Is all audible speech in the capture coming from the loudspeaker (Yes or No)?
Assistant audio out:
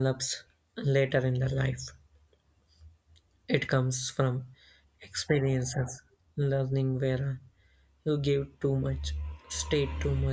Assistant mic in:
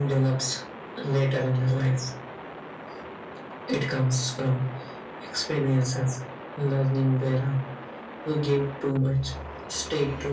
Yes